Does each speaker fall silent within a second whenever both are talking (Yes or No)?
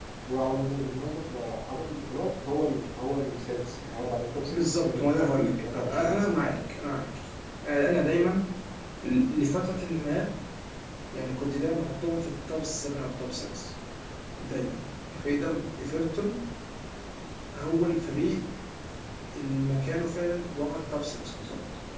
No